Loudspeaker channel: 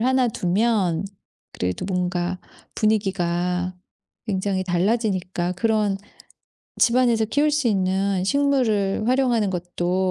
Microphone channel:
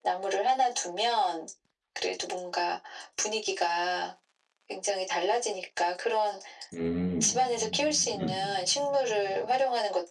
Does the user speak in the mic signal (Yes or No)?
Yes